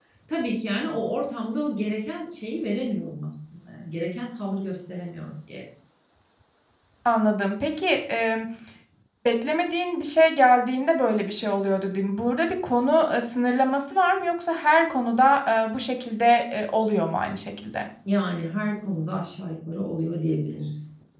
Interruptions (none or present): none